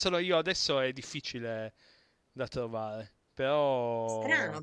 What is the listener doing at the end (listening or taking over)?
taking over